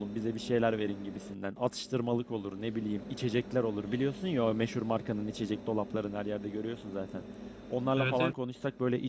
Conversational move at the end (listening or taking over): listening